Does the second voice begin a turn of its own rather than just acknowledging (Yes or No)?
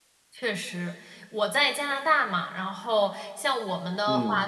No